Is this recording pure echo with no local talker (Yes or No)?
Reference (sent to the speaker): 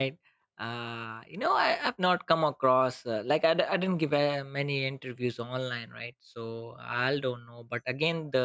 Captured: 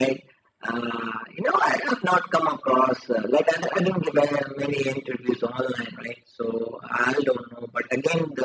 Yes